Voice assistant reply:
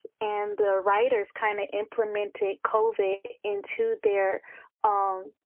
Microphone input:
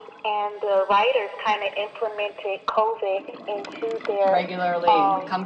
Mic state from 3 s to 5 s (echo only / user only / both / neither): both